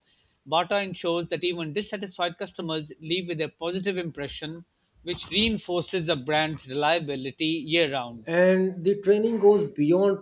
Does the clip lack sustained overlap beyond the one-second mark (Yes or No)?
Yes